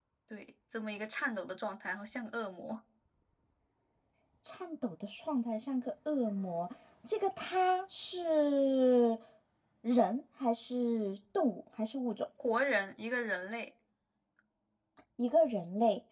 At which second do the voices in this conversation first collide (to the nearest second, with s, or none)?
none